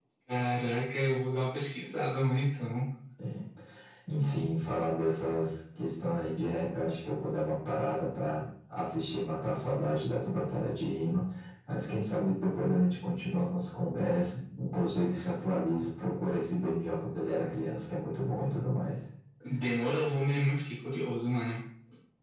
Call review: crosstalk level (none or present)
none